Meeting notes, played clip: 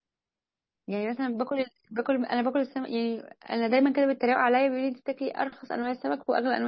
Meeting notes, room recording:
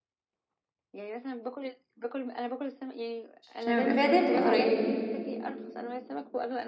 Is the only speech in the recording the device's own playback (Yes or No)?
No